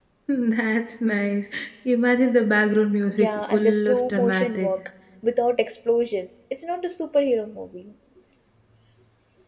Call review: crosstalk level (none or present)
present